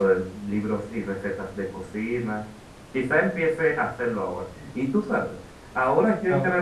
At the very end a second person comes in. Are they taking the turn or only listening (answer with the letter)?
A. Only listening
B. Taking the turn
A